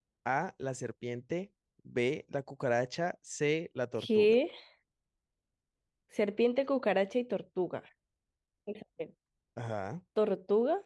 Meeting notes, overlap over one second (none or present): none